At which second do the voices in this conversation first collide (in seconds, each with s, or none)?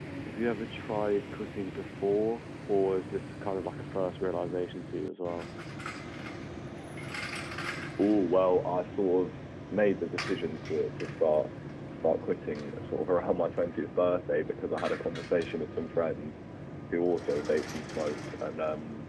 none